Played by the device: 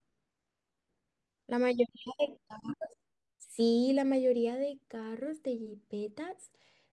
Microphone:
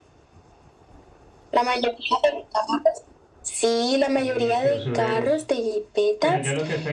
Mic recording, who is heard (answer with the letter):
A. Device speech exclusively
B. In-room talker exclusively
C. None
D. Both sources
D